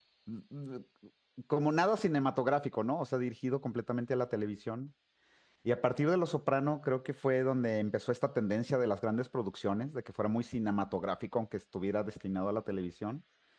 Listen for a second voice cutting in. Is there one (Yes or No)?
No